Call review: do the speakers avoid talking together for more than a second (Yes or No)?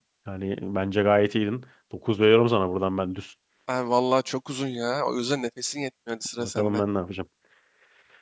Yes